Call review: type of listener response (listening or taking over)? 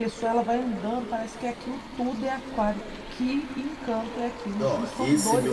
taking over